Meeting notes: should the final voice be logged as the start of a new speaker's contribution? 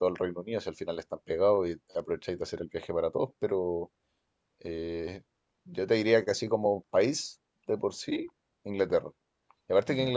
No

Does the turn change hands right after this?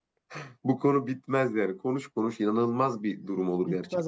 Yes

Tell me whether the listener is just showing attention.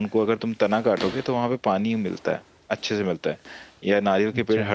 Yes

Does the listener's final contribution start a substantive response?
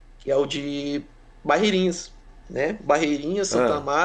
No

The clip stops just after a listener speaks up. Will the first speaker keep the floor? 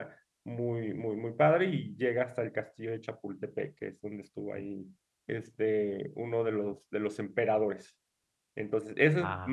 Yes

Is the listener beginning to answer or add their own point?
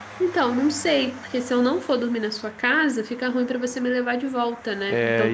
Yes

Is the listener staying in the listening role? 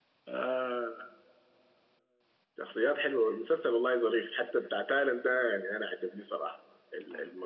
Yes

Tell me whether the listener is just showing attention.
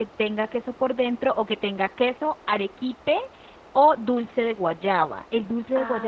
No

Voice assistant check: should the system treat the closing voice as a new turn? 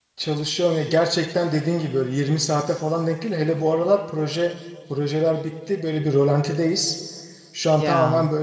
No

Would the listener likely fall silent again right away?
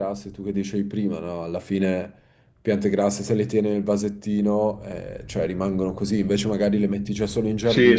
No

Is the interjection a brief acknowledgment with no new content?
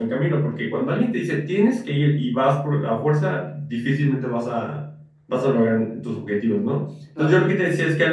Yes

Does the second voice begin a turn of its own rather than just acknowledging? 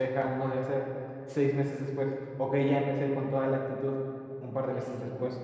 No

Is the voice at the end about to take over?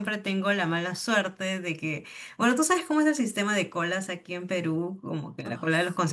No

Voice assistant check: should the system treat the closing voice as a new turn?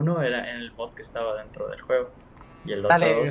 Yes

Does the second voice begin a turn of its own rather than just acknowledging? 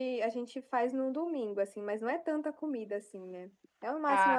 No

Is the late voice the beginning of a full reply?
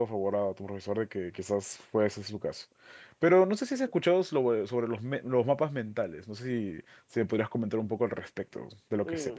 Yes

